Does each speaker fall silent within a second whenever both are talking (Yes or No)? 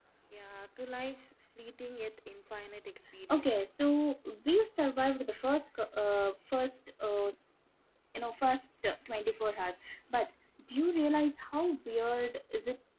Yes